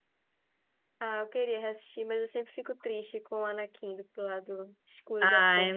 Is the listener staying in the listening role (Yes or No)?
No